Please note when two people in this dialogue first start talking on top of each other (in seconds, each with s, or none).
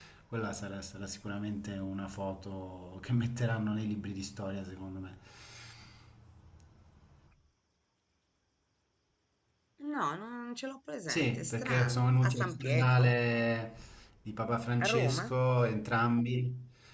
11.1 s